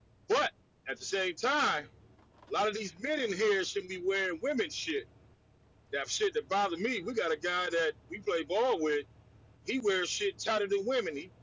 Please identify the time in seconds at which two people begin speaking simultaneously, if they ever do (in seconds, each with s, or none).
none